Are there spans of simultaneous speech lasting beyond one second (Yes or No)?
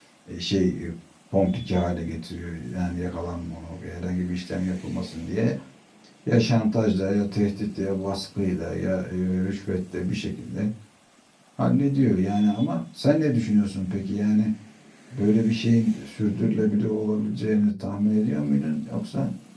No